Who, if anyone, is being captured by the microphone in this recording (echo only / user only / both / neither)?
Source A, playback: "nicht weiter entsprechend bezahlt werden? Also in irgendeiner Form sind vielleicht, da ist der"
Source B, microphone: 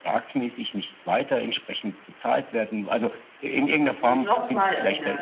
both